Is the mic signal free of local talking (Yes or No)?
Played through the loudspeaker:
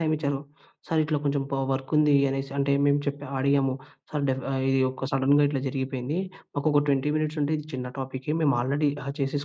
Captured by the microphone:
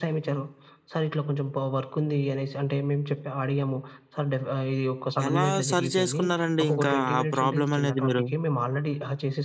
No